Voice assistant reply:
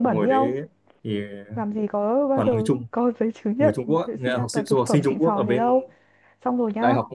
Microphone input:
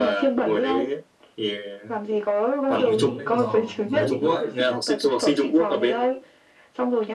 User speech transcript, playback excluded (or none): họ nướng lên giòn giòn rụm luôn đấy,